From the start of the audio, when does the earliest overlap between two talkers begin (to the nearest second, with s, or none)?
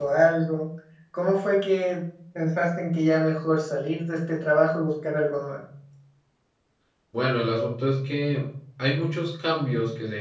none